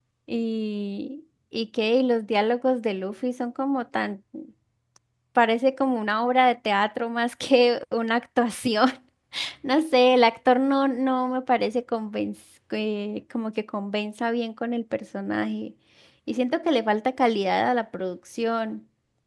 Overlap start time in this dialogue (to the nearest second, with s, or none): none